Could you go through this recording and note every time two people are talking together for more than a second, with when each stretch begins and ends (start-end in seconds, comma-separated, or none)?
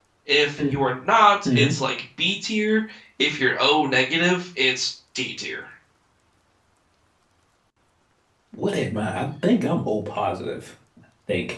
none